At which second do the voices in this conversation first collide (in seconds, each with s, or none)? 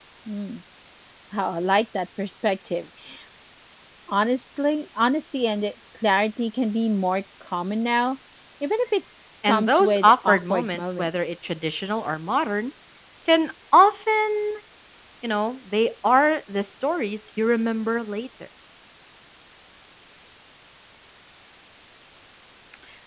9.5 s